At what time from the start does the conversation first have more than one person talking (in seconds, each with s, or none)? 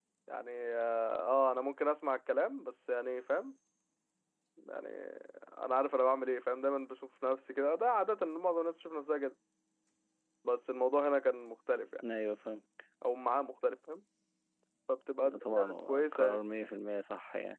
15.2 s